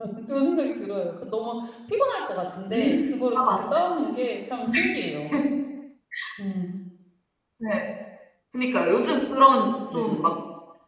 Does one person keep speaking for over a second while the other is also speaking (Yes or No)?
No